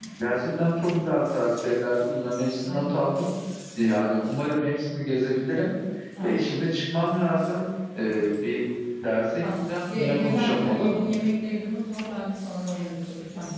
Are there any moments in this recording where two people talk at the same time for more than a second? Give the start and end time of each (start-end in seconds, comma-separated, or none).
9.4-11.0